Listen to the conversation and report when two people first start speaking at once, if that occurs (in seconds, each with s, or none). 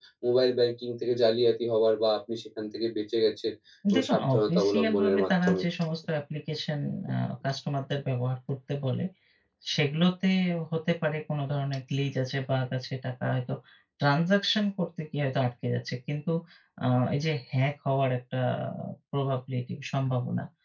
3.9 s